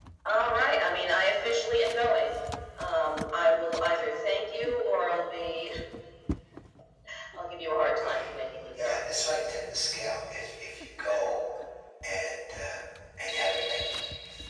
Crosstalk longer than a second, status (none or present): none